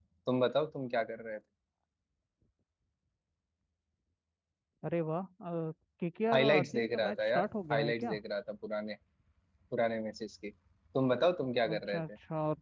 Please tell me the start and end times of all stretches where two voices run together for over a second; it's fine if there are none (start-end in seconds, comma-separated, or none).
6.3-8.2